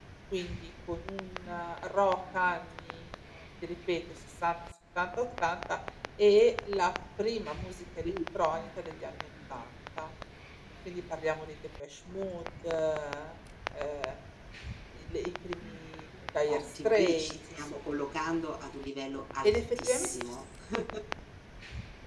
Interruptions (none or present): present